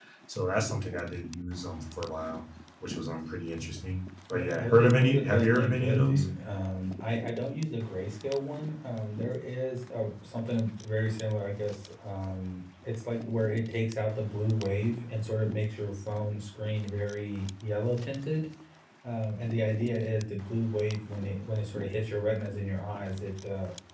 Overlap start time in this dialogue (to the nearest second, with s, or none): 4 s